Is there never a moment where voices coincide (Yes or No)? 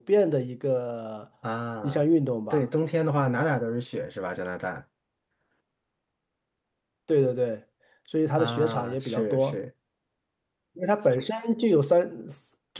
No